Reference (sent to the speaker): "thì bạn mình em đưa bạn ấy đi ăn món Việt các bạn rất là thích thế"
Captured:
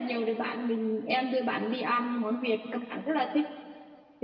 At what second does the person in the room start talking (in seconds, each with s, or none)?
none